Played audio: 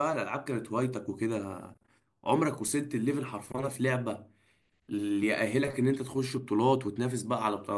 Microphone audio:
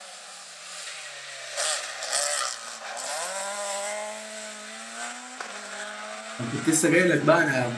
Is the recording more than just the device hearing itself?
Yes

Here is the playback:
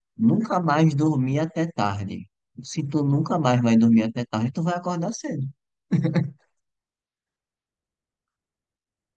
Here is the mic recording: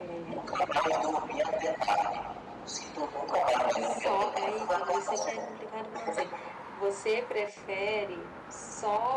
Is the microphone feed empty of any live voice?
No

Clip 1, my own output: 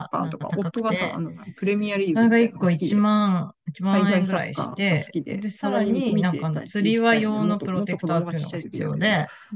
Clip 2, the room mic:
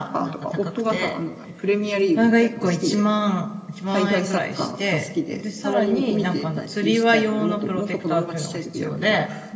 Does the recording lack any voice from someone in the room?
Yes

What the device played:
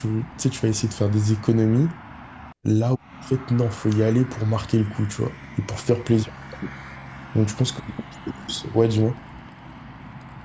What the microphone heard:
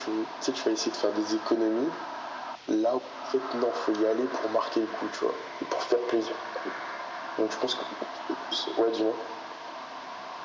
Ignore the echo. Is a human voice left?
No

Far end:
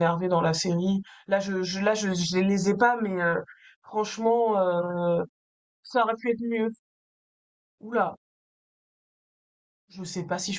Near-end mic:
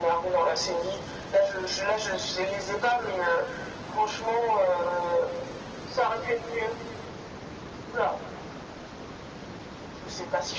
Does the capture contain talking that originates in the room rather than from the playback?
No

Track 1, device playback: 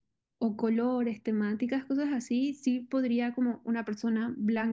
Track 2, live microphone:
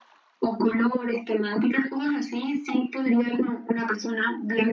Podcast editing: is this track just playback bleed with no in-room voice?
Yes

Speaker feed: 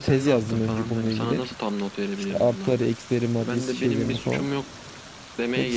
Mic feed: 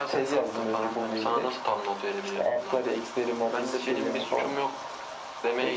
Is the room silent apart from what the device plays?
Yes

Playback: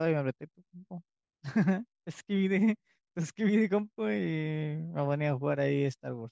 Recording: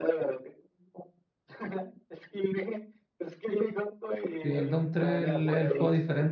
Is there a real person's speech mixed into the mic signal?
Yes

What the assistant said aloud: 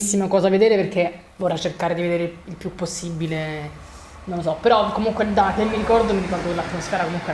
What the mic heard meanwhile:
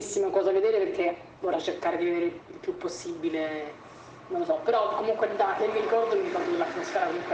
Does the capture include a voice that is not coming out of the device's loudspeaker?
No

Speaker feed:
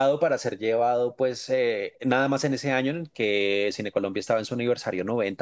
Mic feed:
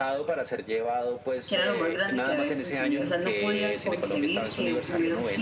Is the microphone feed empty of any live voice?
No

